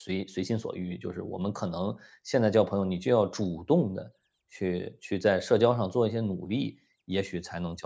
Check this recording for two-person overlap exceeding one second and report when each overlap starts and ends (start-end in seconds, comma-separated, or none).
none